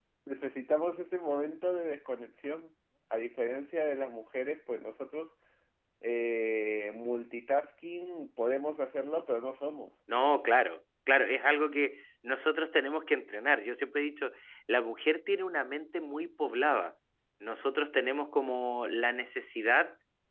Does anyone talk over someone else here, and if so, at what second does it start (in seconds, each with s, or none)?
none